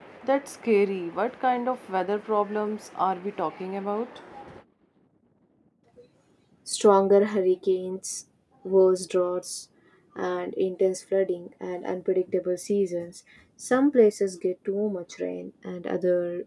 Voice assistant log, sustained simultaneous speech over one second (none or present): none